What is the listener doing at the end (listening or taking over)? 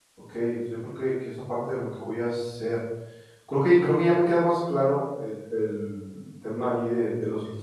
listening